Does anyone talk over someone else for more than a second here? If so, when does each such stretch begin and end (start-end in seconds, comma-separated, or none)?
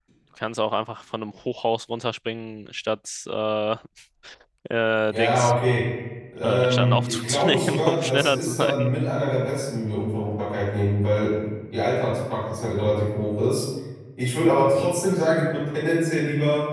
6.4-8.9